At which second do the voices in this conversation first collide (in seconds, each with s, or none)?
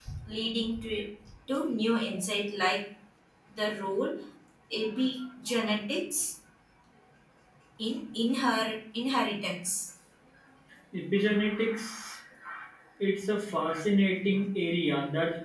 none